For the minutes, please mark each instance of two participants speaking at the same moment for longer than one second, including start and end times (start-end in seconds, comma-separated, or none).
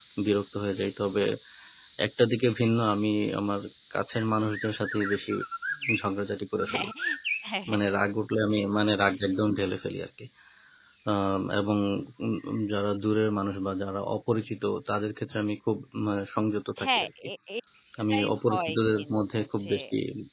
18.1-19.7